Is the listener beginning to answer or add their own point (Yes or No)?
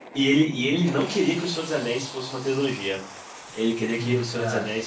No